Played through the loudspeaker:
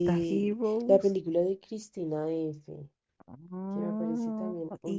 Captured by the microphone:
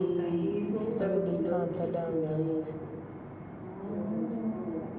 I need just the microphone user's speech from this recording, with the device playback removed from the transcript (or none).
A mí me encanta el Laberinto.